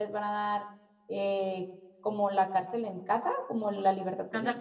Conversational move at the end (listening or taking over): taking over